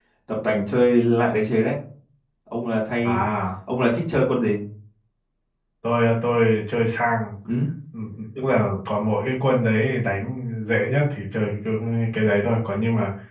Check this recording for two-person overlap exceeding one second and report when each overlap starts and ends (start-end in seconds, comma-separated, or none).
none